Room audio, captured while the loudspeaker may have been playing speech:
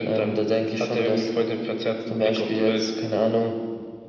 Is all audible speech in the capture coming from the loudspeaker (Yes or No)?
Yes